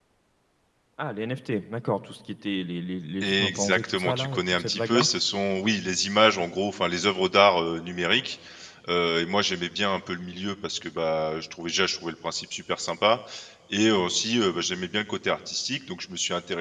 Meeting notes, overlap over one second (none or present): present